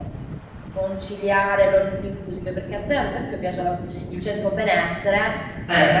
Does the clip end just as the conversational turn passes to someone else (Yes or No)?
No